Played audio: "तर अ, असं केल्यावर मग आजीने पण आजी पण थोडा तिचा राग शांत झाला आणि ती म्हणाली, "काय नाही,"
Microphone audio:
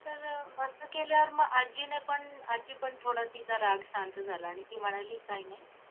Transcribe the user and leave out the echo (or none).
none